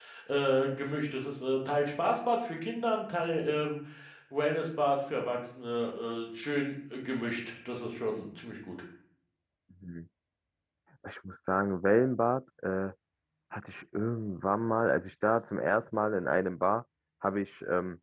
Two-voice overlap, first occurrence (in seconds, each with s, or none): none